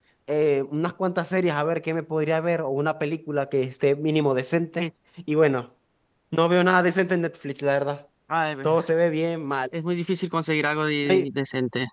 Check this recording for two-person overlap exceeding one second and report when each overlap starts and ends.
none

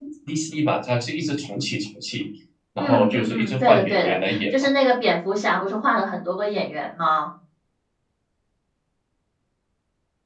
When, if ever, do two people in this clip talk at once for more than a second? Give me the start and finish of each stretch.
2.8-4.4

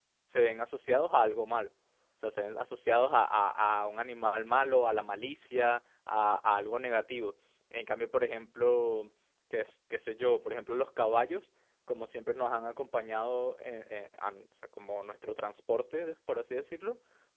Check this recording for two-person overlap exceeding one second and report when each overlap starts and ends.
none

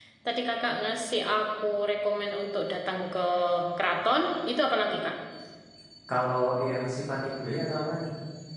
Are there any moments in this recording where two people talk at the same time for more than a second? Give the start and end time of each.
none

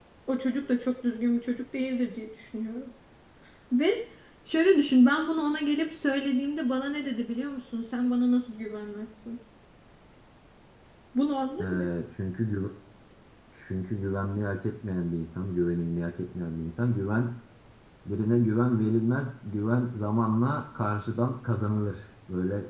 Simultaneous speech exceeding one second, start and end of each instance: none

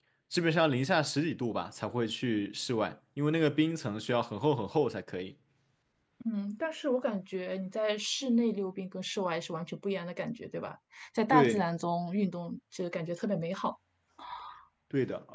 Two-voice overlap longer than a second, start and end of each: none

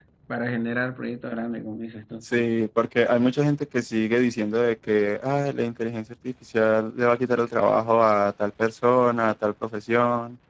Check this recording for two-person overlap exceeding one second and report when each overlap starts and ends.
none

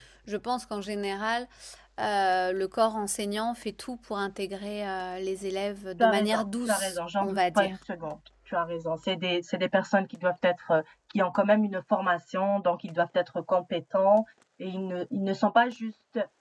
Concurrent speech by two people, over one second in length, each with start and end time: 6.0-7.8

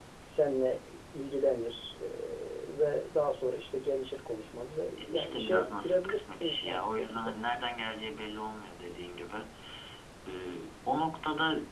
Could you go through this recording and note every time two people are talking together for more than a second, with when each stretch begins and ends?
5.0-7.4

